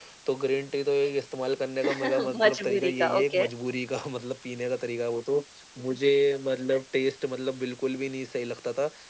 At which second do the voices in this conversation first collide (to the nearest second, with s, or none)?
2 s